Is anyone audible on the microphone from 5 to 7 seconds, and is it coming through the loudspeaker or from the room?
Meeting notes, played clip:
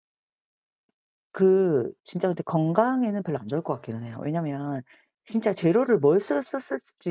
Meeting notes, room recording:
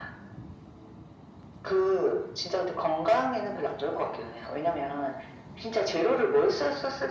echo only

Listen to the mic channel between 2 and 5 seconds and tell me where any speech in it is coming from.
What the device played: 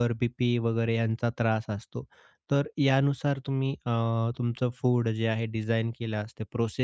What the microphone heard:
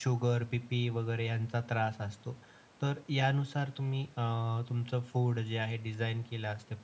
echo only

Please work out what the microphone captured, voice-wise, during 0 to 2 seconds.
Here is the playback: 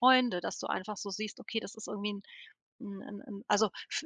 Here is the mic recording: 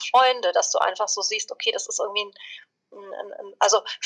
echo only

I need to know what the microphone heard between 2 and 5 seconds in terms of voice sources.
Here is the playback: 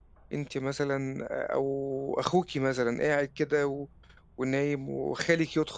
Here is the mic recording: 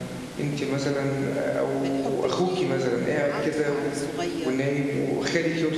both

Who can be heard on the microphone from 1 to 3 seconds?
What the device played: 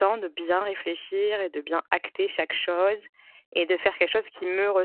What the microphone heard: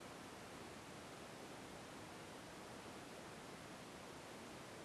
neither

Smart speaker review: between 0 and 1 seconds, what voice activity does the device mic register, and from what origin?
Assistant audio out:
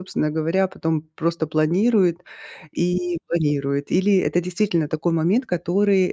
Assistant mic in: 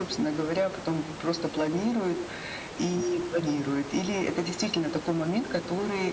echo only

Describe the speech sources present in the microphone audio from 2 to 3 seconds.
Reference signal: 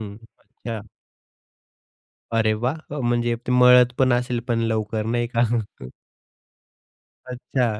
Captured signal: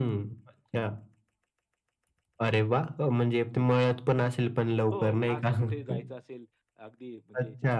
echo only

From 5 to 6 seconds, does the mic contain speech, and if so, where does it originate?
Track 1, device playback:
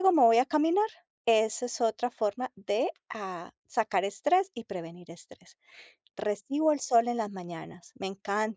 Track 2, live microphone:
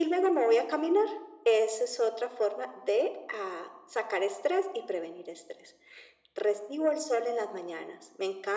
echo only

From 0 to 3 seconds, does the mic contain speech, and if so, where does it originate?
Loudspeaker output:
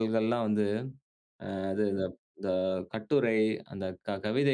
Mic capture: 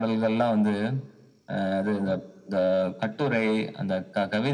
echo only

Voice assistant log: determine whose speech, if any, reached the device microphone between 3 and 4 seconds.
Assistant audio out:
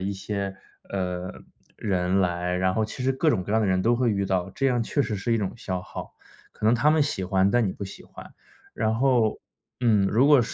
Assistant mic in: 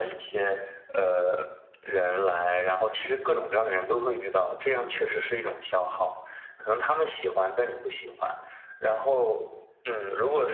echo only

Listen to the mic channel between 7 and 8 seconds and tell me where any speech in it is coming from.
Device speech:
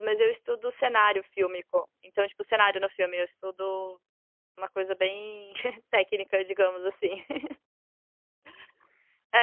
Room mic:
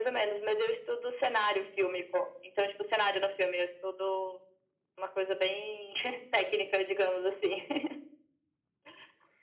echo only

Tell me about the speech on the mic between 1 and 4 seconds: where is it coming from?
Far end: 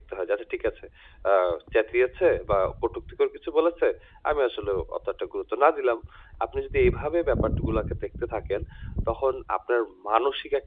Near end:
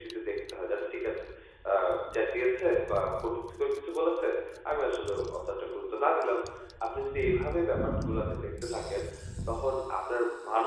echo only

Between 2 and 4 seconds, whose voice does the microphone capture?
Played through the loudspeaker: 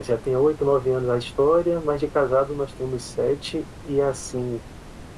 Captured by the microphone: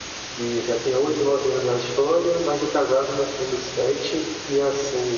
echo only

